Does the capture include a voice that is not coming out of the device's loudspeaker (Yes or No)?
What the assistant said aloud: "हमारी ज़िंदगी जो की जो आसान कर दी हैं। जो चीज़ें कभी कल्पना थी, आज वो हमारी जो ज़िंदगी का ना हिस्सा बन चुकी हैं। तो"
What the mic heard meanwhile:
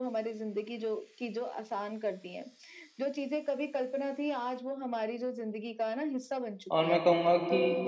Yes